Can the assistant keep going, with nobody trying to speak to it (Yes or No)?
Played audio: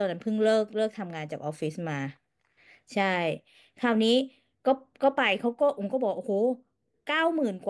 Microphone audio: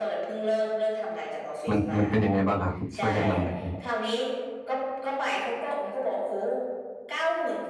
No